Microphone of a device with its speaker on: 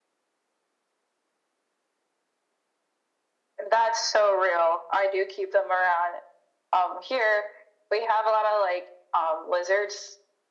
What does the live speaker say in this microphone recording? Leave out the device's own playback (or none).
none